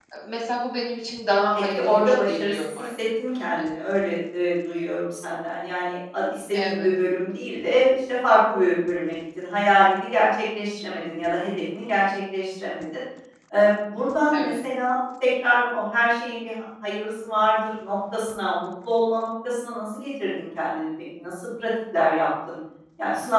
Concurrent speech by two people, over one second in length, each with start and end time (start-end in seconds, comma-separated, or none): 1.6-2.9